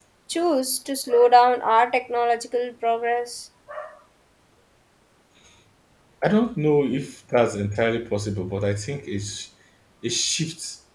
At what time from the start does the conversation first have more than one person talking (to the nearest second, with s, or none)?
none